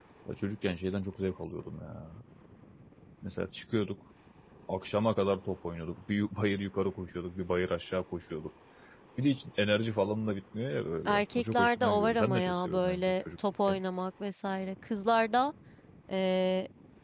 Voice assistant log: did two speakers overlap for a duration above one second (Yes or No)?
Yes